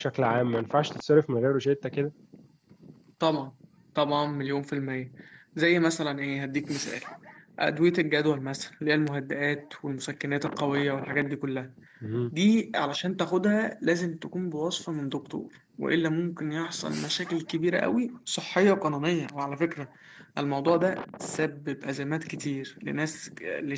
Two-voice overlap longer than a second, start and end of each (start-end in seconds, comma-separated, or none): none